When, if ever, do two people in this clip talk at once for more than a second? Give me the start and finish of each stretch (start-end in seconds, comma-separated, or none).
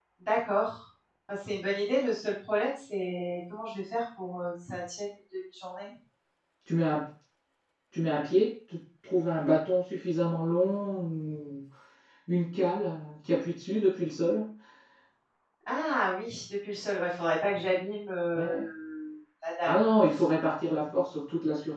none